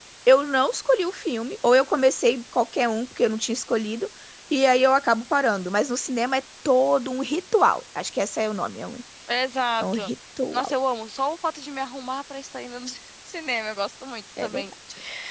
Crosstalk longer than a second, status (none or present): none